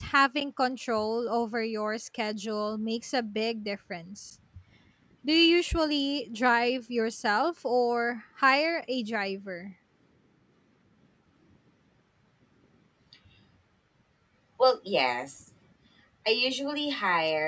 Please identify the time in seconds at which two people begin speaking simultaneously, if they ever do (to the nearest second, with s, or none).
none